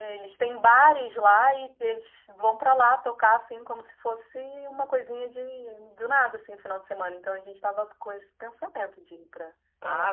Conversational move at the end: taking over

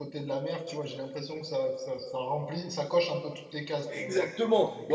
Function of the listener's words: taking over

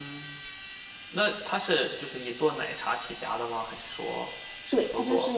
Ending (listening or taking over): taking over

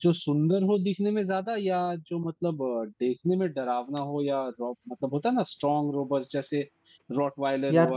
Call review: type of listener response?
listening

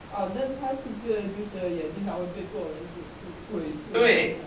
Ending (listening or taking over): taking over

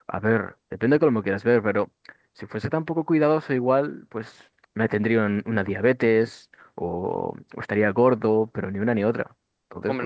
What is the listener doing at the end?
taking over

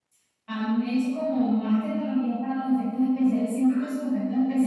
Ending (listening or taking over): listening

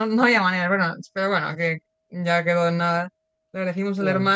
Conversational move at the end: listening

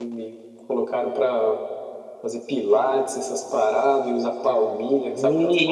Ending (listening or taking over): taking over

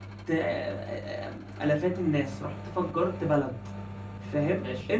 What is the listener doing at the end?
listening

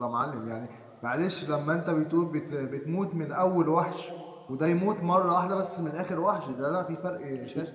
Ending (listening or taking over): taking over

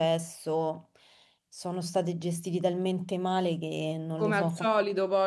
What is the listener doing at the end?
taking over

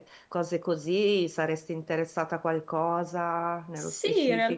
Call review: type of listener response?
taking over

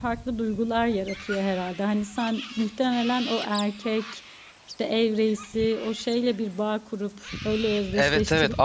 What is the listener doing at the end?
taking over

